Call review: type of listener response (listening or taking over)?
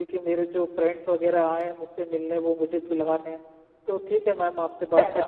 listening